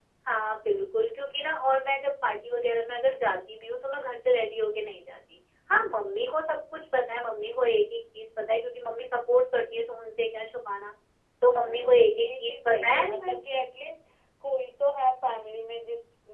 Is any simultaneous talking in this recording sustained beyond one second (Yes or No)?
Yes